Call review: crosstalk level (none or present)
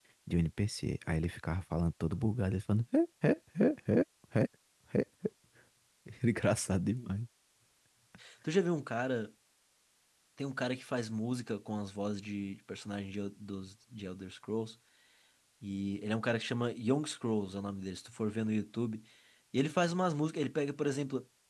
none